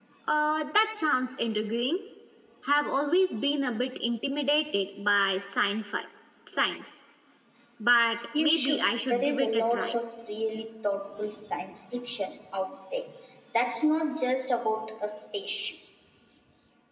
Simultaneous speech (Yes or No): Yes